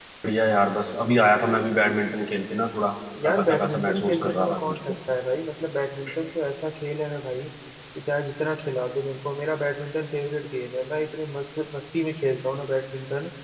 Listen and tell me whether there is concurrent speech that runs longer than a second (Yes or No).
Yes